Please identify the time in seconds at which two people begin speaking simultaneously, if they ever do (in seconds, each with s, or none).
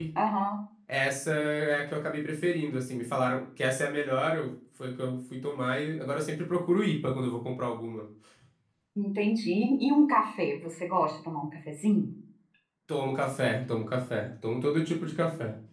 none